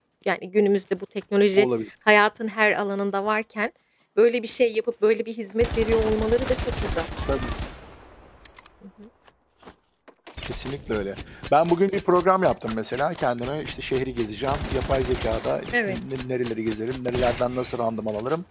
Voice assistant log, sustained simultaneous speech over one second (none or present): none